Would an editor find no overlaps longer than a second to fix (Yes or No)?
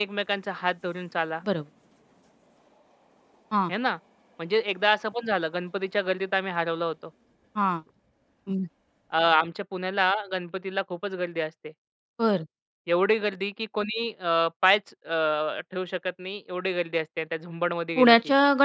Yes